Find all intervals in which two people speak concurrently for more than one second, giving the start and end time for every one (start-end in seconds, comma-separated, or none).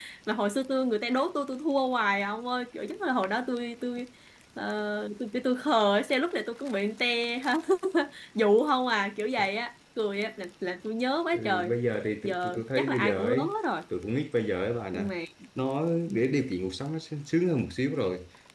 12.2-13.5